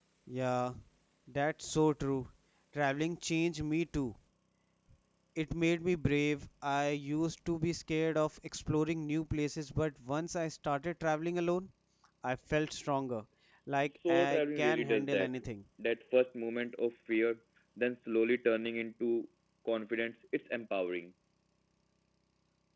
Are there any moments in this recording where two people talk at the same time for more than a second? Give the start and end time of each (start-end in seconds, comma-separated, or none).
13.9-15.3